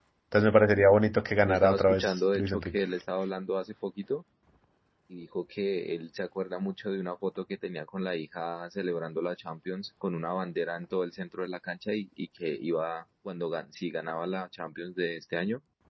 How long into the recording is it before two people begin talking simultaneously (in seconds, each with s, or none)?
1.5 s